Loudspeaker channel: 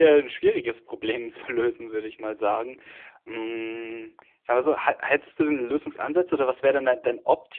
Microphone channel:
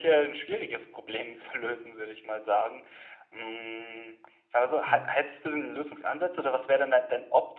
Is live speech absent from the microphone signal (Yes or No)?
No